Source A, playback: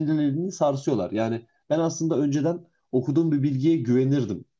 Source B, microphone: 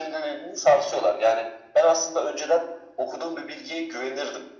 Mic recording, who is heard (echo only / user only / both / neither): echo only